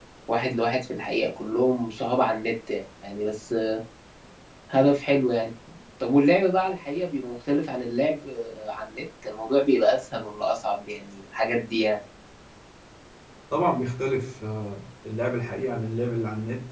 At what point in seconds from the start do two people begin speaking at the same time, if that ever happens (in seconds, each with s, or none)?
none